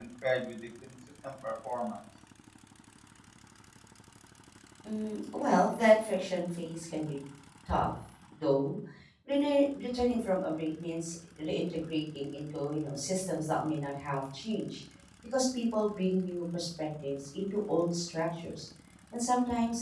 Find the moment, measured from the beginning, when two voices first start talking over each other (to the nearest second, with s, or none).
none